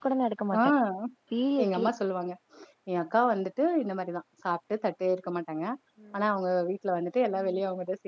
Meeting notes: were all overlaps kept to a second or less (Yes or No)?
Yes